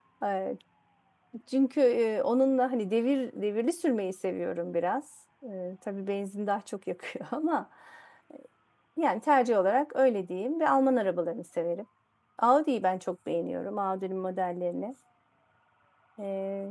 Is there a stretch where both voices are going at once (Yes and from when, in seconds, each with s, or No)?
No